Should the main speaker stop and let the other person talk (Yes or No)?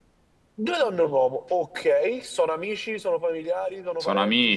Yes